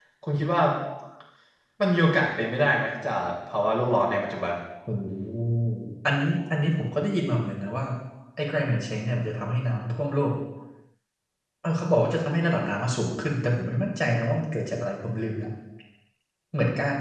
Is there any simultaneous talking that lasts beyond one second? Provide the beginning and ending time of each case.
none

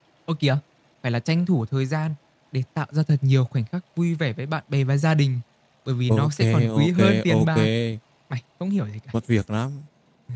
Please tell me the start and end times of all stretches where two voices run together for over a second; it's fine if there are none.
6.1-7.5

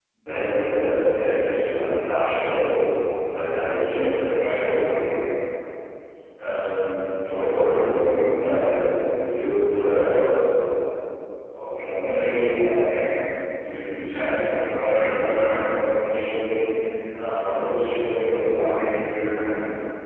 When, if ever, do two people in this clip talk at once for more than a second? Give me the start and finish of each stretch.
none

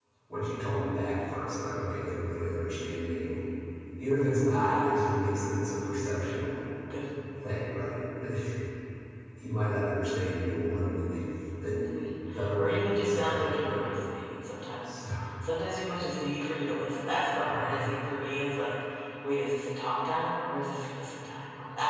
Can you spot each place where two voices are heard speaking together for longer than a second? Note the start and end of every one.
12.6-13.8

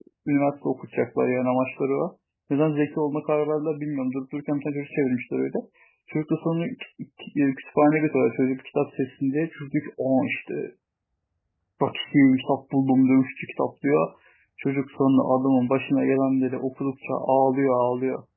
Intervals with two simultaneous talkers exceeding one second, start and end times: none

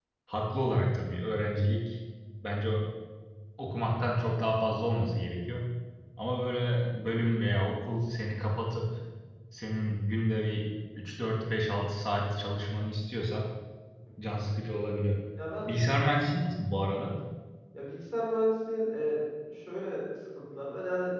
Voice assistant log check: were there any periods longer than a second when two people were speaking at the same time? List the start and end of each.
none

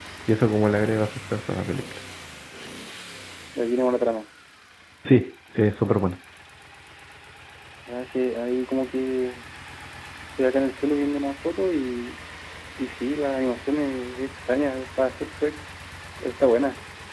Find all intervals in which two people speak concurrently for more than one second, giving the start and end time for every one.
none

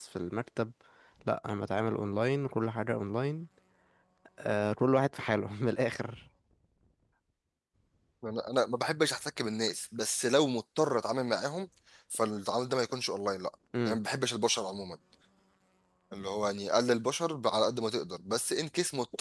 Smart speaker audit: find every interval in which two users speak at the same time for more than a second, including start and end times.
none

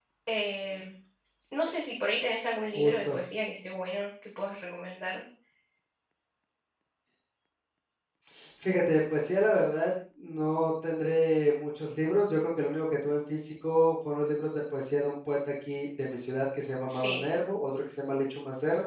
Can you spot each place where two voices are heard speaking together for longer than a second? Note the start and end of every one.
none

